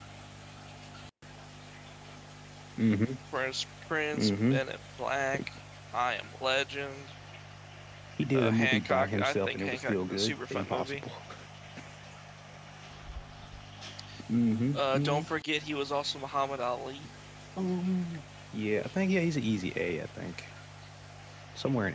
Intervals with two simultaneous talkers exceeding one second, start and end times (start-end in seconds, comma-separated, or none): 8.3-11.0